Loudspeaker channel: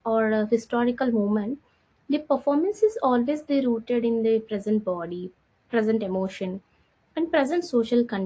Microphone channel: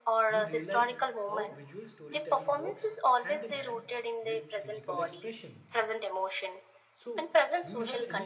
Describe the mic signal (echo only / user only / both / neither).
both